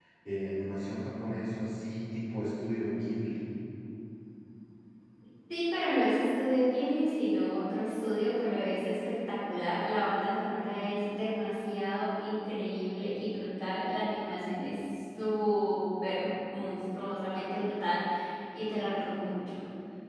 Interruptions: none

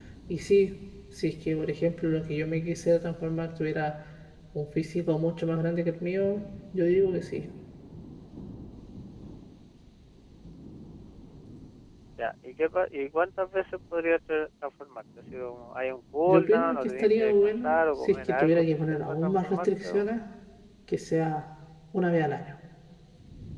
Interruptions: present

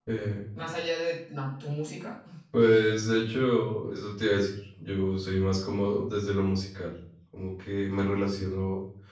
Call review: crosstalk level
none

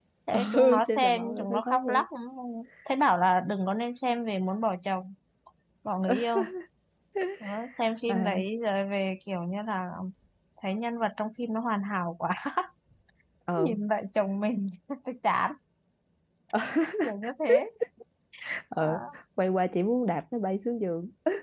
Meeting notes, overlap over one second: present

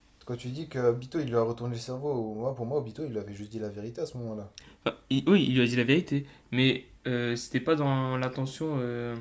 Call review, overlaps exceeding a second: none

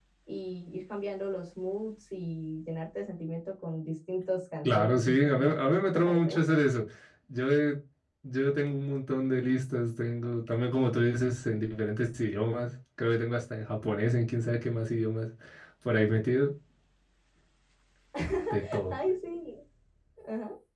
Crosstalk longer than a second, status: present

